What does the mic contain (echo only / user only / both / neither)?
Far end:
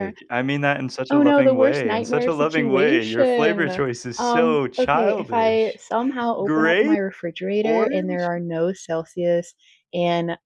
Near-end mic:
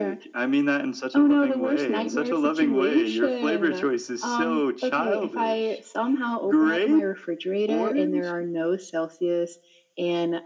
echo only